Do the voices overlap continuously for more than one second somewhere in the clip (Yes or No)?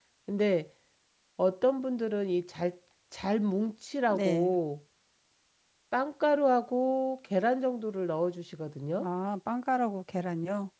No